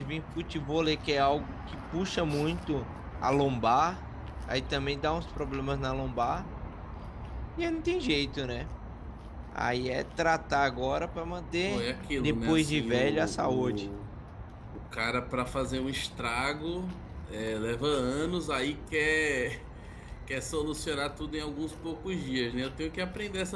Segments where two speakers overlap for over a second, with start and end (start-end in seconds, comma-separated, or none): 11.7-13.8